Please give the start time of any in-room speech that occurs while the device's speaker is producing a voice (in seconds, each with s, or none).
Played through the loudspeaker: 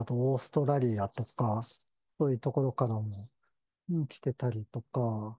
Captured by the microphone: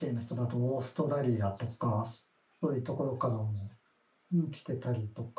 none